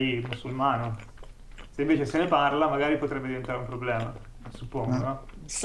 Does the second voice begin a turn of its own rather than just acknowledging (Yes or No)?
Yes